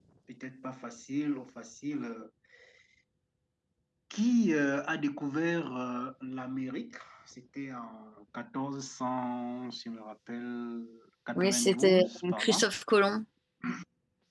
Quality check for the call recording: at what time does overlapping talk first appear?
11 s

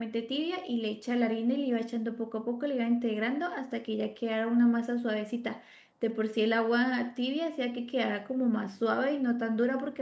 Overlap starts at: none

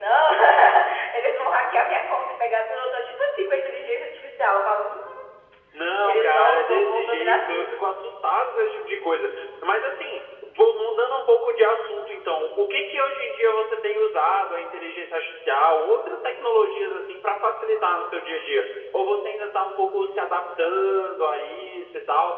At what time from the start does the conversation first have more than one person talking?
6 s

